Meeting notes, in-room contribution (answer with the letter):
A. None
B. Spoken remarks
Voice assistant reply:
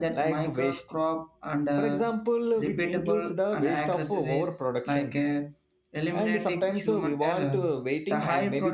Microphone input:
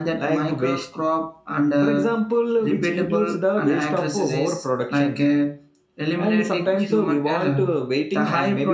A